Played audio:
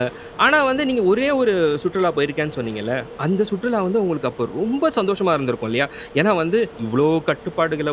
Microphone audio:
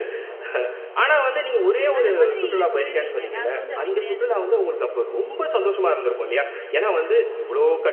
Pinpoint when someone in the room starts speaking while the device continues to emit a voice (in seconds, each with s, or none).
2.0 s